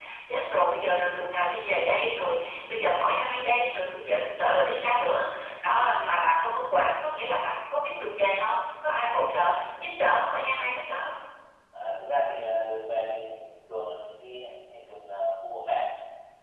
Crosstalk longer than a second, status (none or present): none